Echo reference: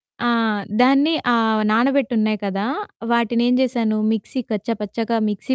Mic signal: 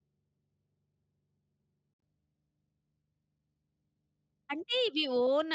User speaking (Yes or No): Yes